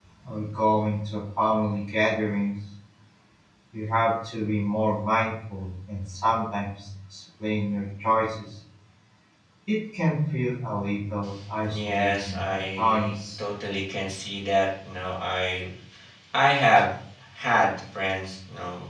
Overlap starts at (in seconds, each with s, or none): 11.7 s